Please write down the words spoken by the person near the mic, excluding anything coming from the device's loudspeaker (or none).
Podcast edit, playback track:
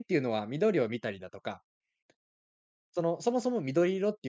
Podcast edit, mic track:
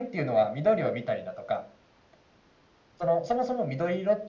none